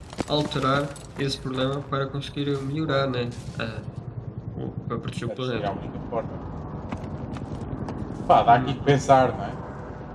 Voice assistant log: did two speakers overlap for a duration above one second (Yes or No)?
No